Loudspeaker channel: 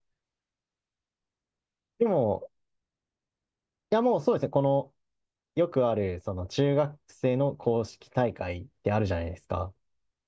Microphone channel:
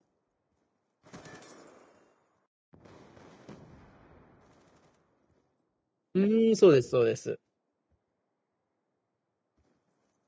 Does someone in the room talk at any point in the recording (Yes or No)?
Yes